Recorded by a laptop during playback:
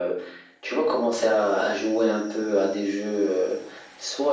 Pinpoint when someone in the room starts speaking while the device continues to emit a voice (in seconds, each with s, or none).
none